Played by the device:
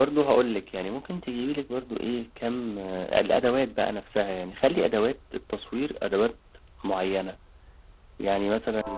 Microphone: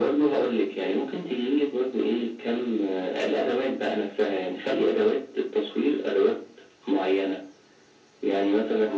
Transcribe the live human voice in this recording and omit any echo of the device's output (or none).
none